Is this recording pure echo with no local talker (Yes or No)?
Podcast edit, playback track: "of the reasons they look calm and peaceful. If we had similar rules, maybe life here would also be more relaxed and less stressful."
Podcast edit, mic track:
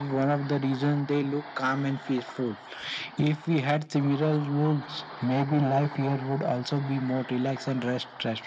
Yes